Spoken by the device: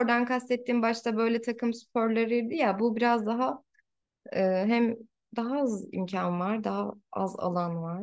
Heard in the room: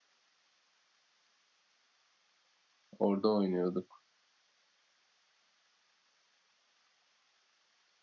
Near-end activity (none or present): present